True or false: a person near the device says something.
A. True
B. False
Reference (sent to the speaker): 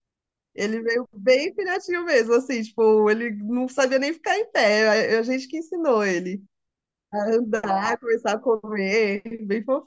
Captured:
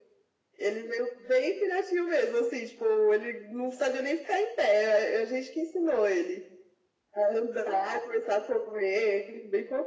B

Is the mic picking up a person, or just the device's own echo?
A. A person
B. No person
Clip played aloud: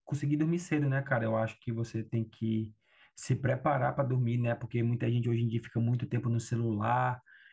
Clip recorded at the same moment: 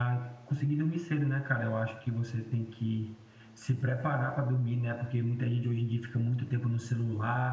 B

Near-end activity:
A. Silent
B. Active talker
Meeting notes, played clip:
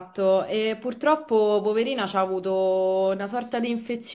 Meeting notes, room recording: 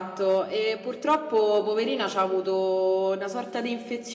A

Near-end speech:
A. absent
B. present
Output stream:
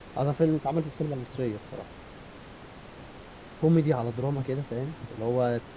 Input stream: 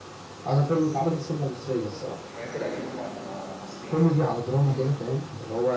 B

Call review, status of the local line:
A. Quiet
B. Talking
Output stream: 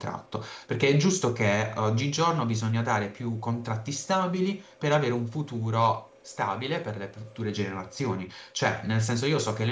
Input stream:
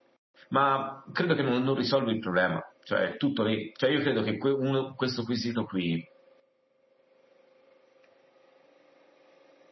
B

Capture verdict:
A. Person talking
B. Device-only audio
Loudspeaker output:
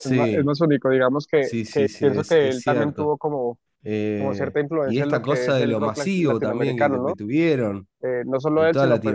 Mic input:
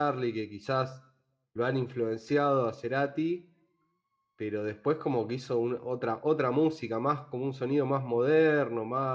A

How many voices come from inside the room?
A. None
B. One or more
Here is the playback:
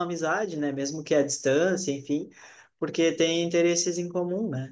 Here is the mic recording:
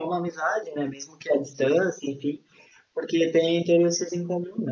A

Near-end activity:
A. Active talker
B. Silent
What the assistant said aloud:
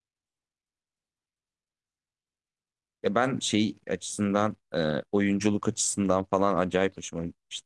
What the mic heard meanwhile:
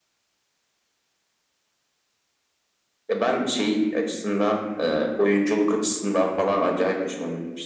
B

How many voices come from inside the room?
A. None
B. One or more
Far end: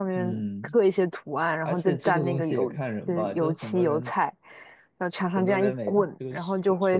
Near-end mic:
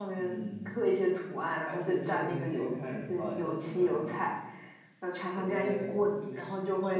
A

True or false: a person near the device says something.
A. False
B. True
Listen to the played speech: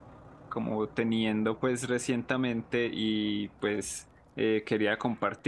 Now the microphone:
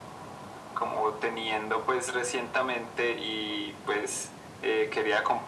A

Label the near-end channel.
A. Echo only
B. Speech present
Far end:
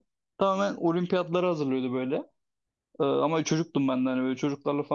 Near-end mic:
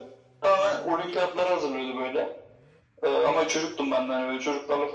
A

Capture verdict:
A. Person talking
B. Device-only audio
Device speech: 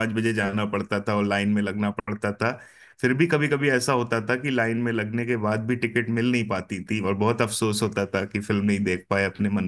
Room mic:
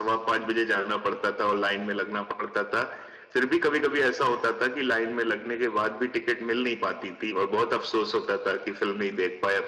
B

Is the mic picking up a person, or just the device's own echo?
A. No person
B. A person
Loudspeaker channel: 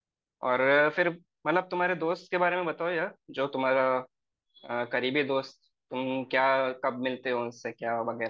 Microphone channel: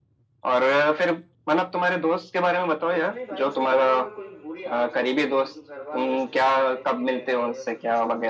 B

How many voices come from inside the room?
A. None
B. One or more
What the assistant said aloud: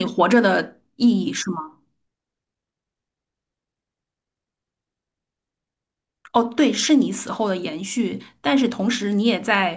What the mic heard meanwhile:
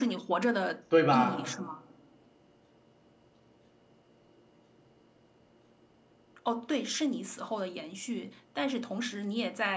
B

